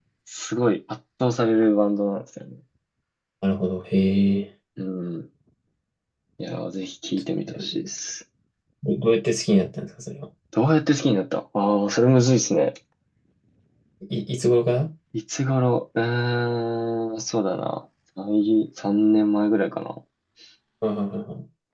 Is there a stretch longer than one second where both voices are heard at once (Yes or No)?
No